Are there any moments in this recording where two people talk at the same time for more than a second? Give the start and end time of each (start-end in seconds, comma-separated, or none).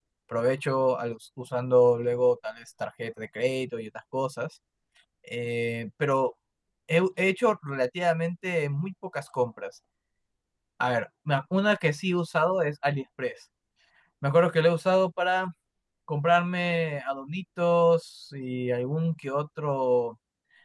none